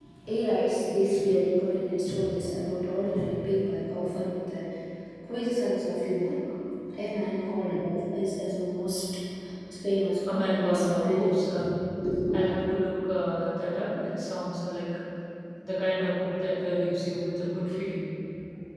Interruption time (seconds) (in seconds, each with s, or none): 10.2 s